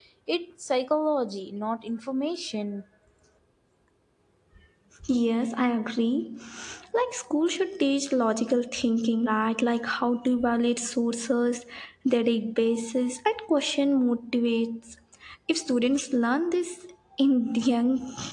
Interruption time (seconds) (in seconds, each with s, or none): none